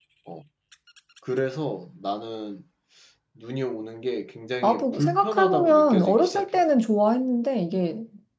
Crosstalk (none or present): present